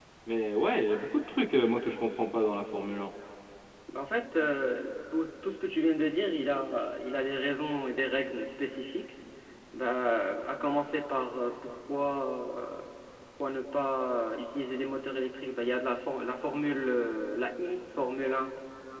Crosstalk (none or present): none